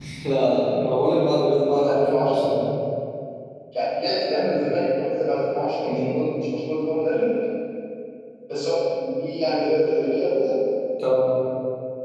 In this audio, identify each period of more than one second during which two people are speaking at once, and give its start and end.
1.1-2.5

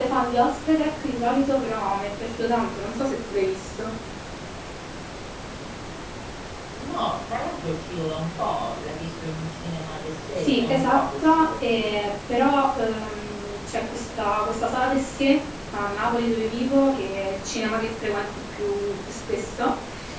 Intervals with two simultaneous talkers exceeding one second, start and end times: 10.4-12.1

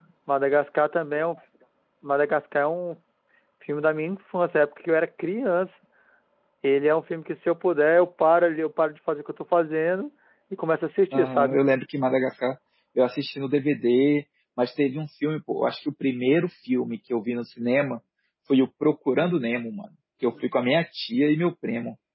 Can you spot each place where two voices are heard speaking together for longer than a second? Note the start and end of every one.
none

